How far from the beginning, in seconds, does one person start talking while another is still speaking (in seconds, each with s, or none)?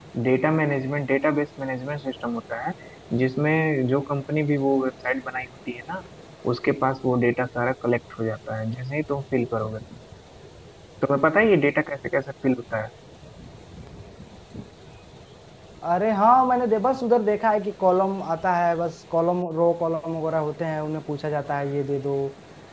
none